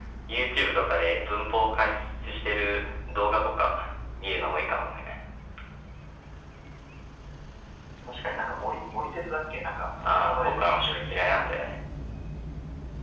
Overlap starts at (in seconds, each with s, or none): 10.0 s